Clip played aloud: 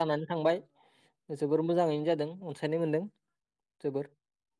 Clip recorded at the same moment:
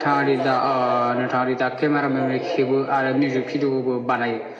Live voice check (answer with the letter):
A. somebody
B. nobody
A